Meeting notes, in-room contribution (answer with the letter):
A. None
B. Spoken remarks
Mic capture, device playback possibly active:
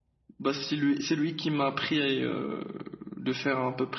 A